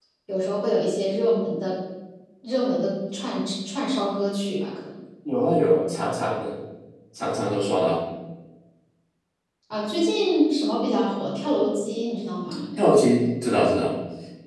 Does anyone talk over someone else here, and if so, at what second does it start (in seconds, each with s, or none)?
none